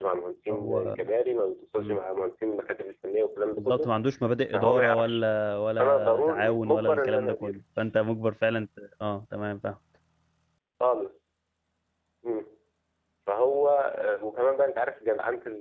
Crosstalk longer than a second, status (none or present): present